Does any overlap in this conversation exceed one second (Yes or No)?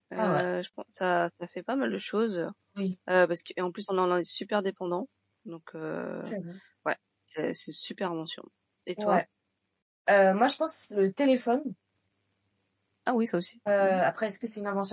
No